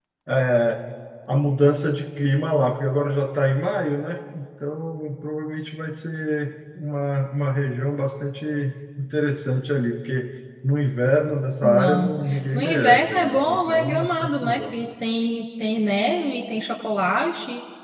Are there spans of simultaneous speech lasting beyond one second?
Yes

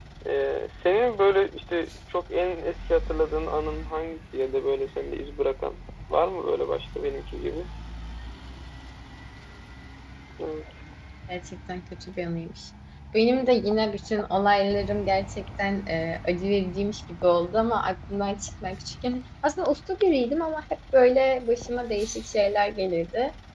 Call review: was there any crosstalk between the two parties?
No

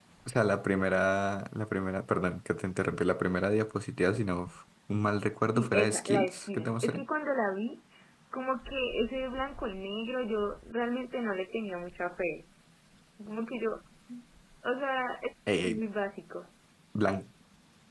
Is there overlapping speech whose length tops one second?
Yes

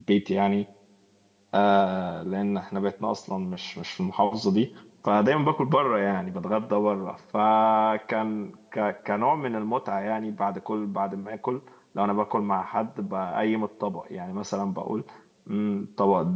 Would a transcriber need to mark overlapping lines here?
No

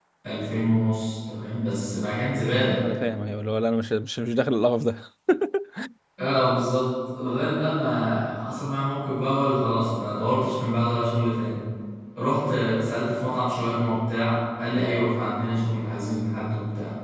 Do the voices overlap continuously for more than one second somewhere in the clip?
No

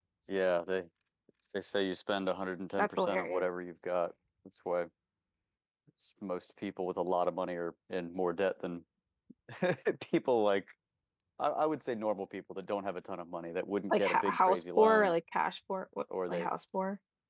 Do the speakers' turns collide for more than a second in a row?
Yes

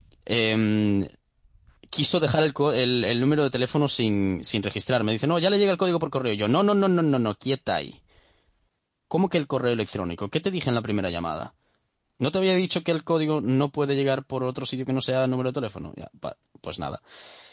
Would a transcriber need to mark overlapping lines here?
No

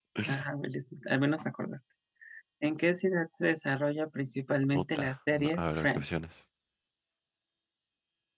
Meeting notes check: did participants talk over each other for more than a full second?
Yes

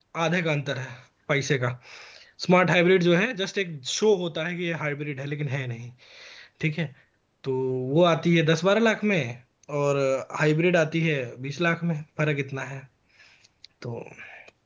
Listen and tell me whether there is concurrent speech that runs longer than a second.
No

